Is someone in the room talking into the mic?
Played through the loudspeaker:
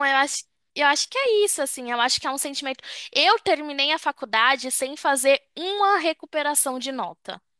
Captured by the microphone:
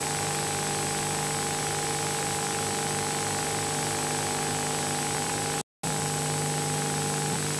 No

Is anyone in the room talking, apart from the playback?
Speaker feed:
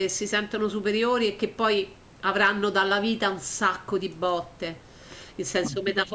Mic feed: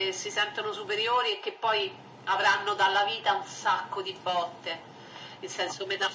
No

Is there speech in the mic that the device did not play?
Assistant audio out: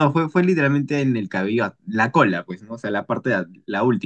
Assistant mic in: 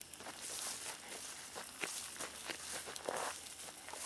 No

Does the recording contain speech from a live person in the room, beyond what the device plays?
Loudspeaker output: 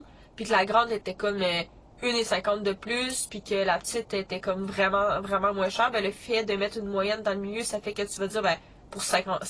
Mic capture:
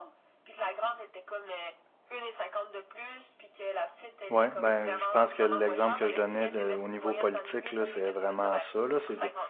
Yes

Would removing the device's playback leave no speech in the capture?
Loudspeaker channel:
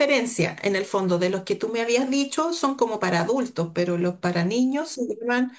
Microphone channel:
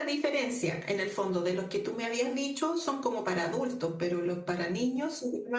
Yes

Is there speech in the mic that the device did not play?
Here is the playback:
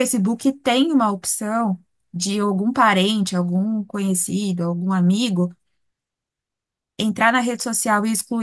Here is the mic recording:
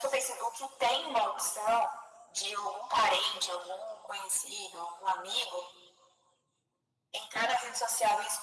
No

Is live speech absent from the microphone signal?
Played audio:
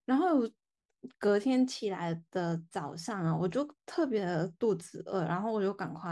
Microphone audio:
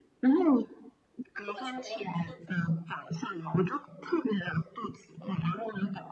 No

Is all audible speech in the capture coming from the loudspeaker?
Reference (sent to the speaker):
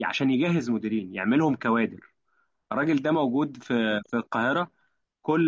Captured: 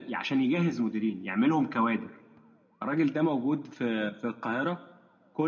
Yes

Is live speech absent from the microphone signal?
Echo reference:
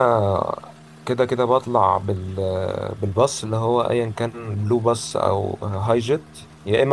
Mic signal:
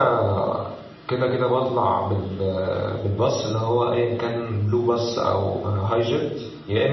Yes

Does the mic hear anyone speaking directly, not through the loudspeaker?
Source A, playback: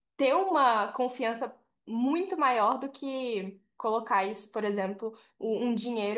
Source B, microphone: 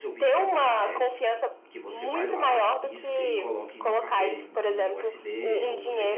Yes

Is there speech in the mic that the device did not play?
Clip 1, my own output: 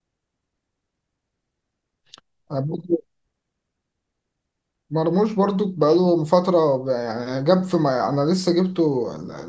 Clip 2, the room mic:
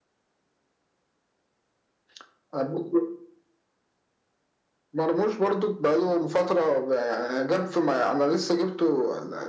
No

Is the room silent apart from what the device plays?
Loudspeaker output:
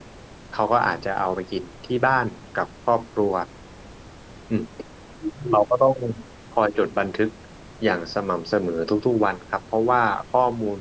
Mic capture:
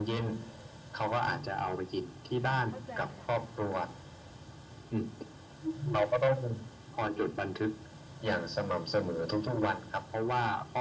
No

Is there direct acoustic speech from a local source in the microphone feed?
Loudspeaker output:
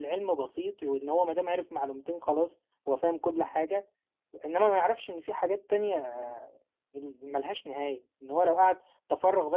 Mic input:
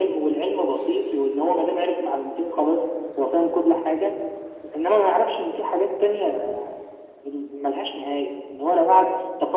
No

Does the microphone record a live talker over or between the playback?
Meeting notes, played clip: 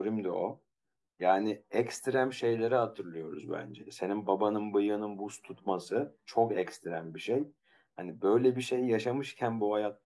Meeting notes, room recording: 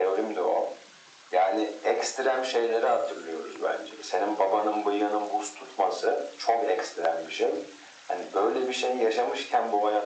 No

